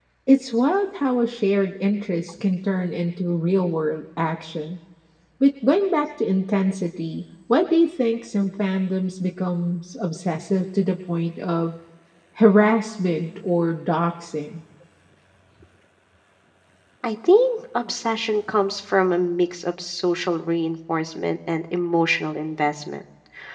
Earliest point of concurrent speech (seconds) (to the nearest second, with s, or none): none